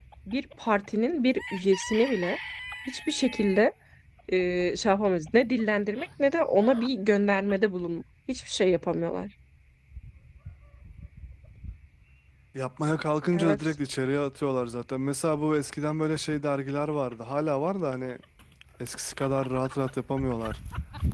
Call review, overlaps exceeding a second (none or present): none